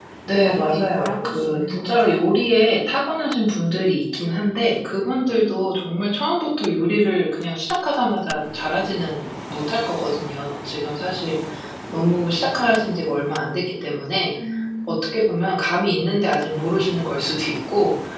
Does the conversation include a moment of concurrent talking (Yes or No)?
Yes